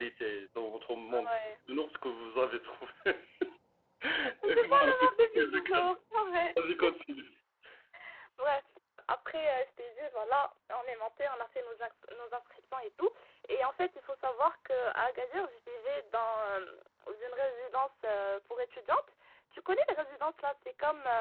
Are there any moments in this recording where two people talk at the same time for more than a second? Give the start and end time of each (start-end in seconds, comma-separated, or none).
4.4-5.9